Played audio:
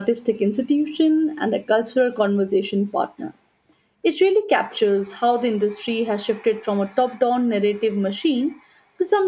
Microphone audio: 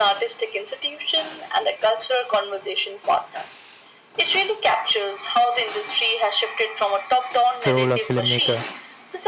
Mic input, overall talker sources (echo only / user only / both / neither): both